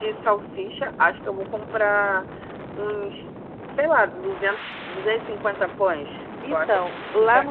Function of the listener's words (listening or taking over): taking over